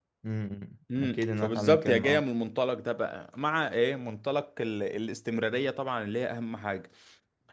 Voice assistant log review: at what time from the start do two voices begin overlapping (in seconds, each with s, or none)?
1.0 s